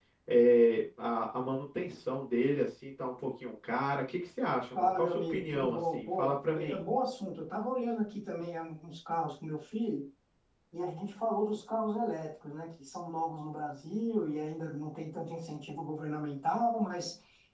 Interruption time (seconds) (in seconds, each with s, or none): 4.7 s